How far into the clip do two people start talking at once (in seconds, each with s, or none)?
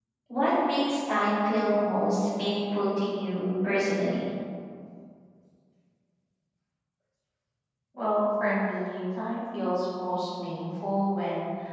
none